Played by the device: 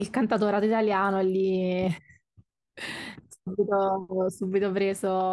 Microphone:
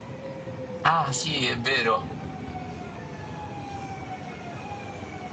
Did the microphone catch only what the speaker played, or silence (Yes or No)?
No